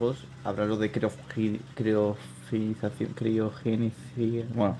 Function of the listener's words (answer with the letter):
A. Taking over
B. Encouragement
A